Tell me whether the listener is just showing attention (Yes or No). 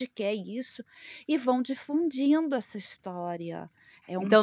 No